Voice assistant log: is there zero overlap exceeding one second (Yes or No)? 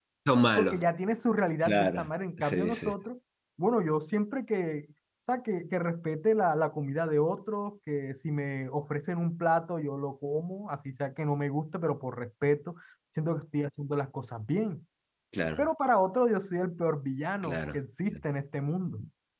Yes